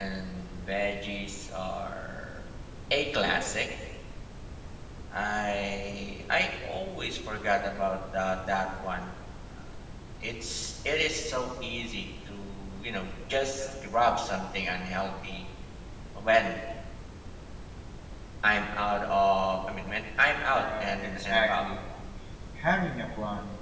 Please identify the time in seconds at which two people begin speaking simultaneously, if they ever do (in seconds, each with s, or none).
20.4 s